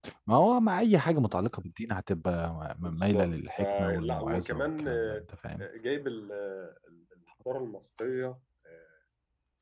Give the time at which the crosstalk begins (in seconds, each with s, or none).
2.8 s